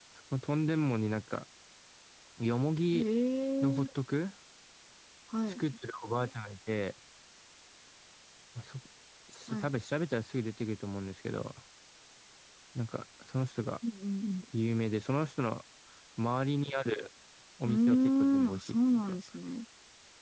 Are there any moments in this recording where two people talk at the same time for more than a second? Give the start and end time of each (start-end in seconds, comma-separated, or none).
17.6-19.2